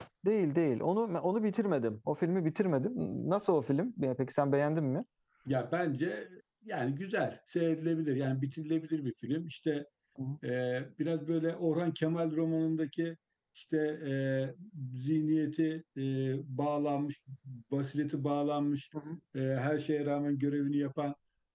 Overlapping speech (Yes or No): No